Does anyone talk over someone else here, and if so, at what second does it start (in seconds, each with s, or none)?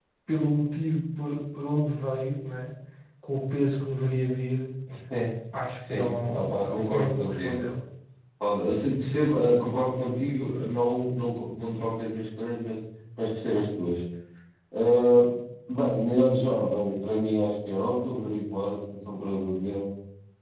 5.9 s